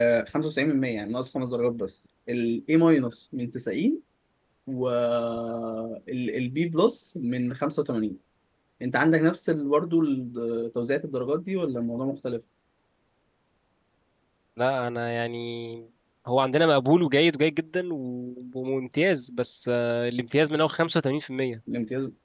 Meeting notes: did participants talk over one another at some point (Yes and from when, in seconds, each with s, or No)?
No